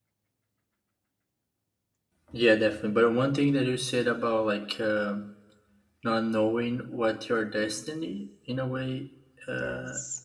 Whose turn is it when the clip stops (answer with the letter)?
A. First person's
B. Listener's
A